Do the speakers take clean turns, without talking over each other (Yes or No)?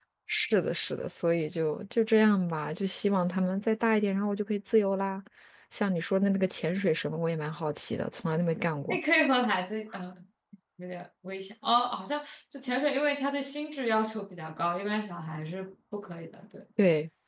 Yes